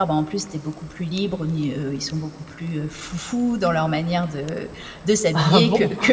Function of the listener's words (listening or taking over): listening